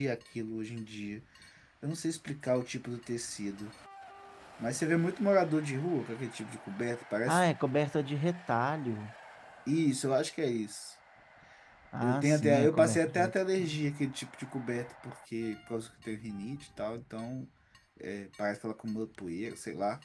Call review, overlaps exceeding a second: present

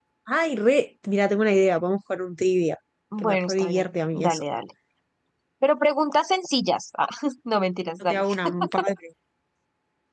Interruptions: present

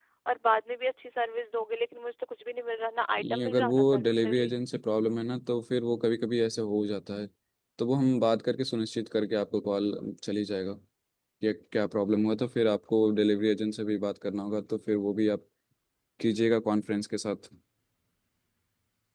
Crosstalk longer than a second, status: present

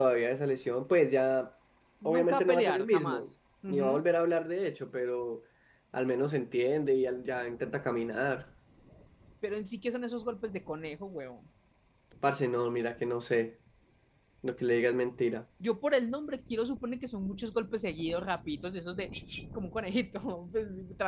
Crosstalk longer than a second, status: present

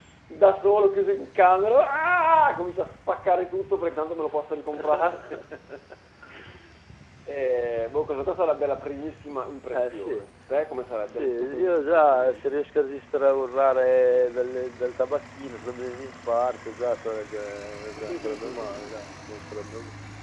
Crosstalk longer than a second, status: present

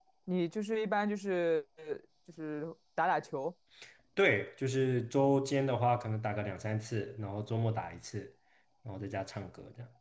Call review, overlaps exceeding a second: none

